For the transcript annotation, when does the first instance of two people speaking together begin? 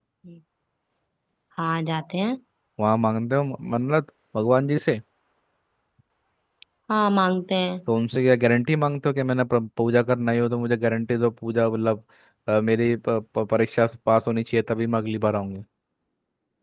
none

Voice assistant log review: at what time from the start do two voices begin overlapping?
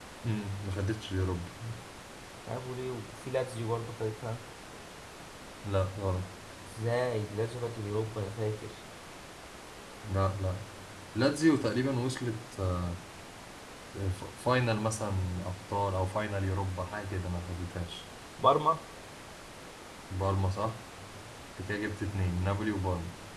none

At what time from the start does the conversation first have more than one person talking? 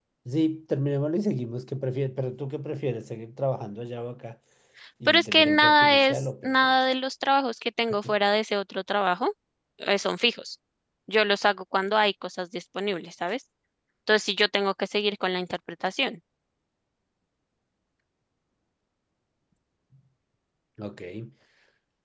5.1 s

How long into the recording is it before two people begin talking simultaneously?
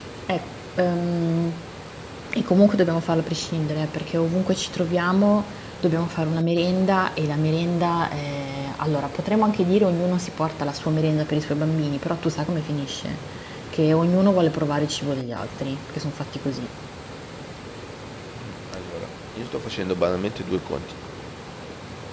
none

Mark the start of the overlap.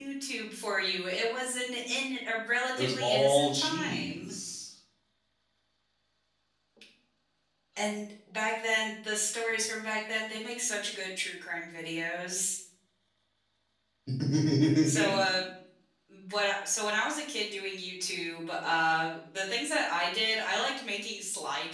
2.8 s

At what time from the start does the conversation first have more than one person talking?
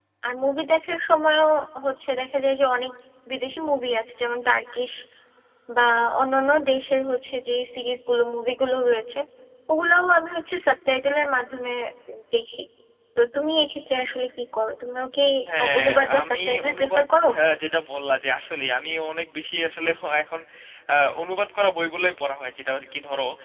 15.8 s

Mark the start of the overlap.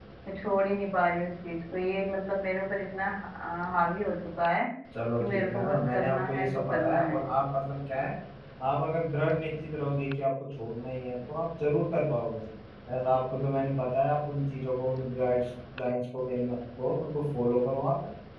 5.2 s

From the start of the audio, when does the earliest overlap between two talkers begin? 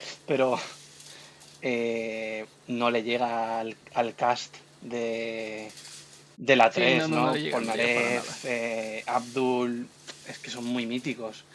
6.7 s

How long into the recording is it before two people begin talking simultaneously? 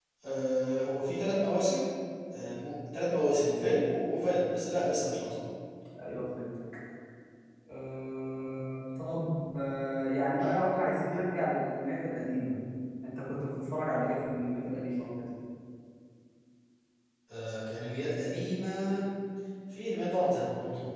none

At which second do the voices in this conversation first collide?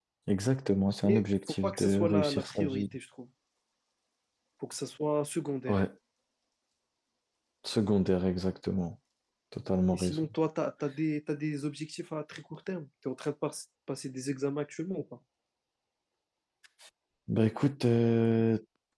1.0 s

